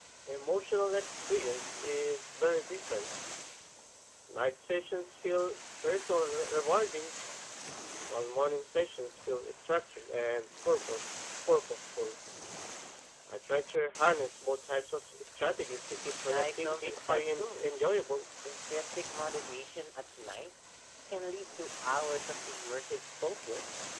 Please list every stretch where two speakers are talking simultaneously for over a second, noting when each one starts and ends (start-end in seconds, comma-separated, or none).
16.3-17.7